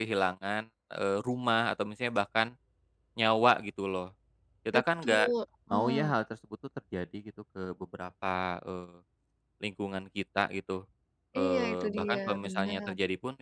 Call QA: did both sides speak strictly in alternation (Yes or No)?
No